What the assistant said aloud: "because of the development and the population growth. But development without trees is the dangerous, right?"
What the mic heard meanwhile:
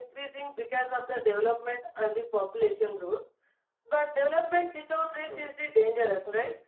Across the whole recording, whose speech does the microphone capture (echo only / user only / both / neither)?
both